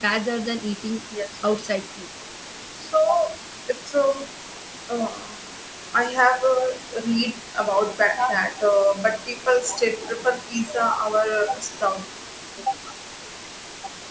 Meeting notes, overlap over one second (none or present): none